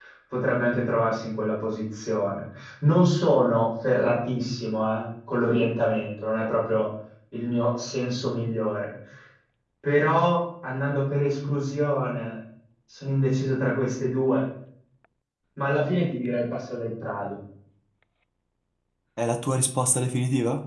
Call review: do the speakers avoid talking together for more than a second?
Yes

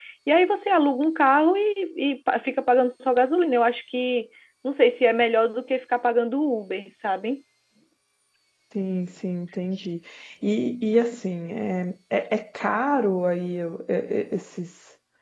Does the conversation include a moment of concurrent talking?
No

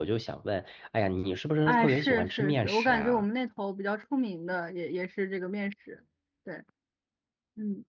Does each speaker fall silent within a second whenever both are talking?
No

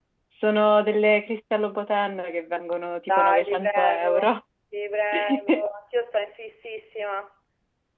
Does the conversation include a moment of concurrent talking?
Yes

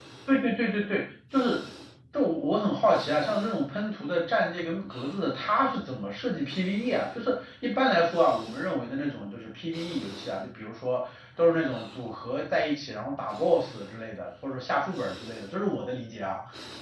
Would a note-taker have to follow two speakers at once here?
No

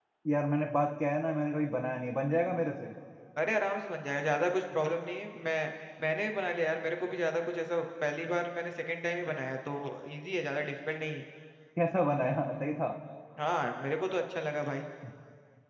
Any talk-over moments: No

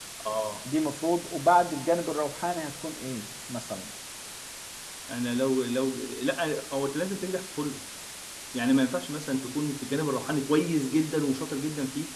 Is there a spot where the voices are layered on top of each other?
No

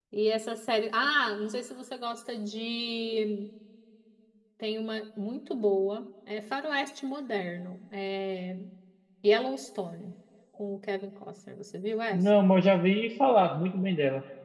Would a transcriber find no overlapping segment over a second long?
Yes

